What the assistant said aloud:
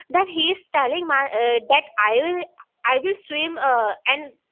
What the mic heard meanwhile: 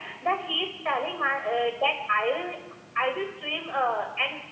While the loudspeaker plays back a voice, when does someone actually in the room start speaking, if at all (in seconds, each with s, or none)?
none